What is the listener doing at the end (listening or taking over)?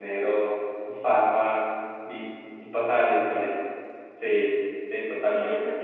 taking over